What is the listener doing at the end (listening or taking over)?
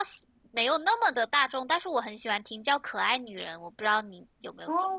taking over